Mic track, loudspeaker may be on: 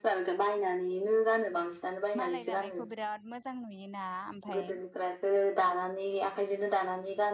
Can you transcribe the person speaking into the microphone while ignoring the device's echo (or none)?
मालाय दानायखौ बिराद मोजां नुयोना ओमफ्राय।